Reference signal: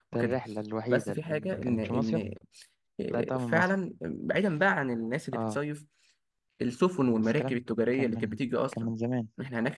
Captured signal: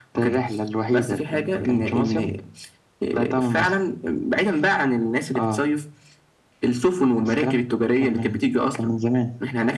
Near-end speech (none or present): none